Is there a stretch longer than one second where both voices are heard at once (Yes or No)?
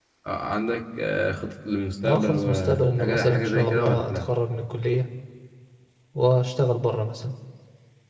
Yes